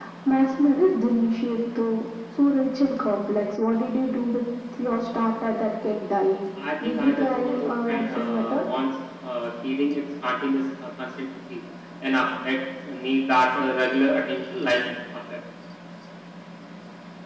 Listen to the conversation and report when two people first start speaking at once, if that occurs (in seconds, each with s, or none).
6.8 s